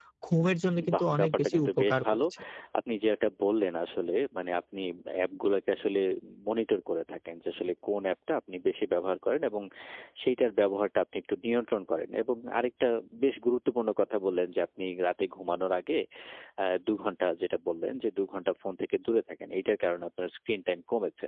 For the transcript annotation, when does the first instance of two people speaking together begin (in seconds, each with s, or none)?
0.9 s